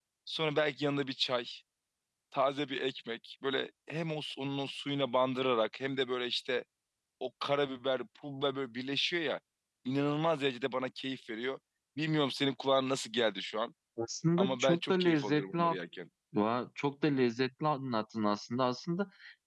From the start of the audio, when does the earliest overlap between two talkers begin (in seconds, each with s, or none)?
14.4 s